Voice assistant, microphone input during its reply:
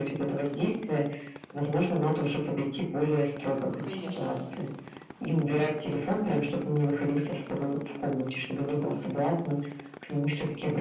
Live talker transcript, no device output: конечно.

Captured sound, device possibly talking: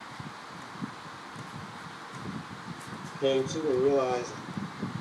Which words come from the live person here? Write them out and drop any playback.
came to and realized,

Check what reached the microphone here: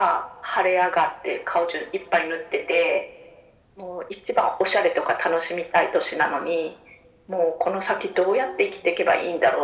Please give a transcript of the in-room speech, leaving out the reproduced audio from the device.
none

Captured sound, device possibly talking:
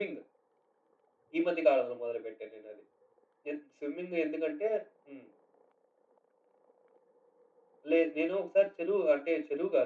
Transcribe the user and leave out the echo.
none

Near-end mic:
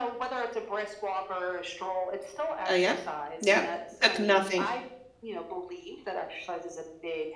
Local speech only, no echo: Uh, yep. Yep. Took nothing.

